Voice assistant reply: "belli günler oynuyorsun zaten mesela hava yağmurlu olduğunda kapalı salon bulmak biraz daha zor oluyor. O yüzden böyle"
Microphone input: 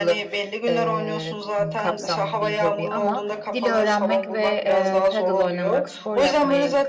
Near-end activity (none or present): present